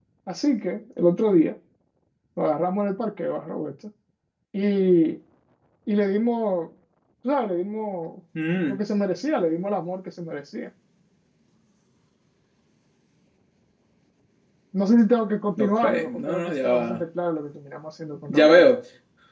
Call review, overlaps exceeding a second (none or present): present